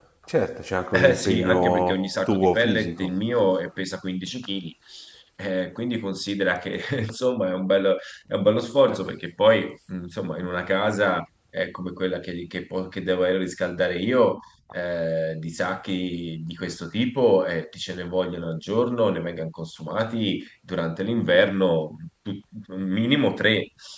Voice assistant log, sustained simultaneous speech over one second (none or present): present